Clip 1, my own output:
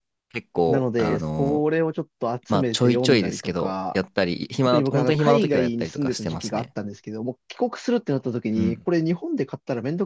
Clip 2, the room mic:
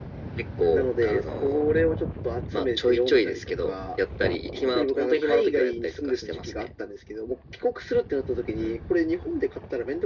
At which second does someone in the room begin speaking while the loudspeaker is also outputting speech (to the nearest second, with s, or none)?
none